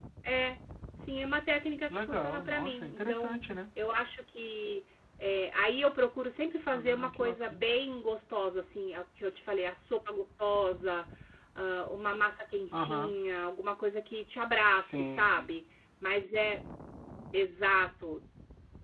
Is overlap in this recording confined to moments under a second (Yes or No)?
No